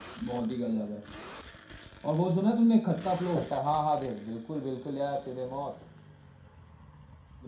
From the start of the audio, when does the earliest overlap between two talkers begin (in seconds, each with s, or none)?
none